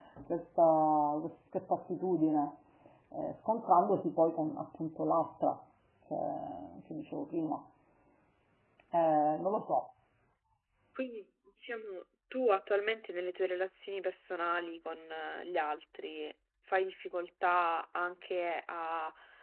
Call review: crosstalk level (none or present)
none